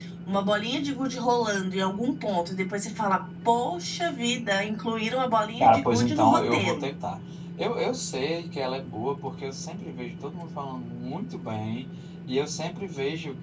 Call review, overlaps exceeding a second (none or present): present